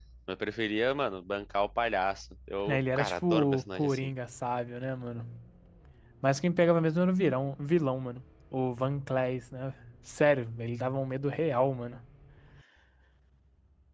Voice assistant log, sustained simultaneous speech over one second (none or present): present